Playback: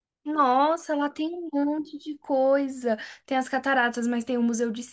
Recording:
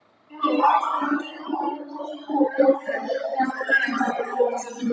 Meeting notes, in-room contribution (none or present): none